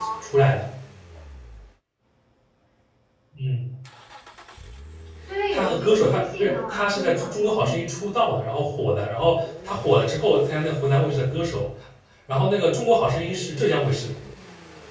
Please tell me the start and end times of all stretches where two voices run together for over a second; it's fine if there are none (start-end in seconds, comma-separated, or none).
5.5-7.5